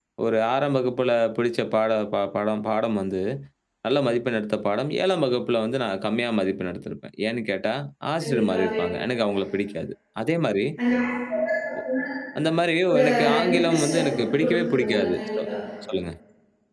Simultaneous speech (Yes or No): Yes